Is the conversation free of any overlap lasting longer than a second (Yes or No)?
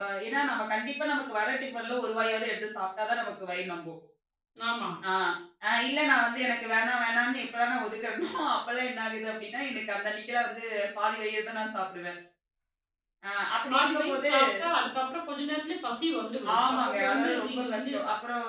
No